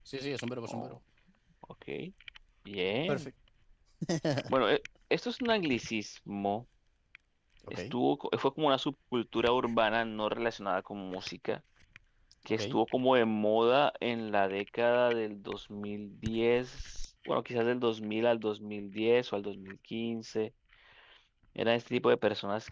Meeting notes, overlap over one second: none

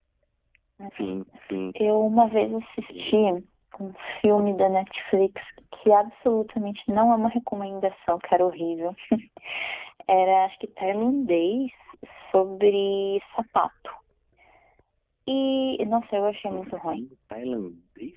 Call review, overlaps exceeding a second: none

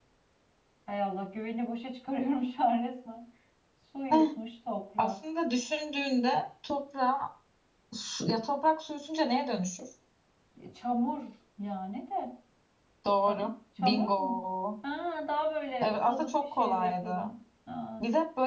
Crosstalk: present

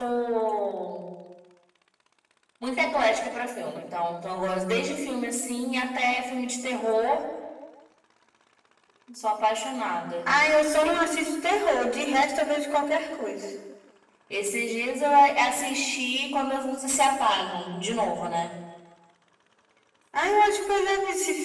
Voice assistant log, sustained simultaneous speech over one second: none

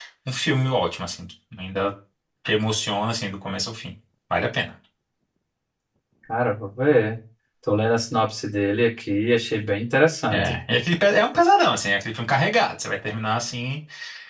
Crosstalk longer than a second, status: none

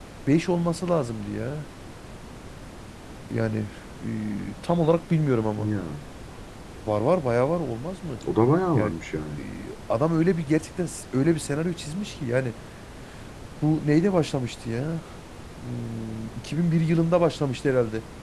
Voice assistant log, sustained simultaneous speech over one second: none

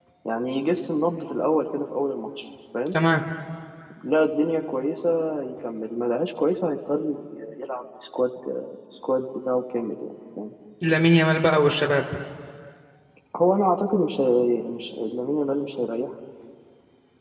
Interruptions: none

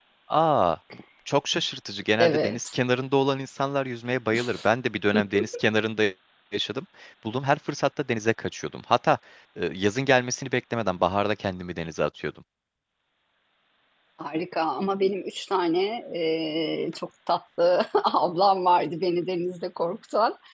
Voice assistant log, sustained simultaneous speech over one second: none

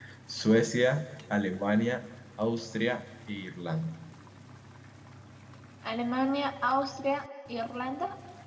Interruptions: none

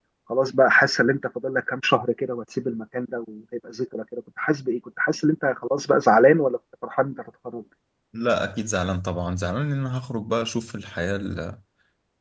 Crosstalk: none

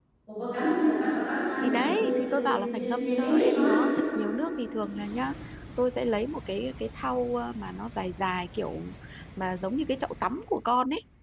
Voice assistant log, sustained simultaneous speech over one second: present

